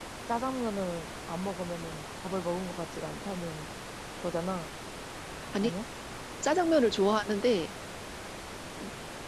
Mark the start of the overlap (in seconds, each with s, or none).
none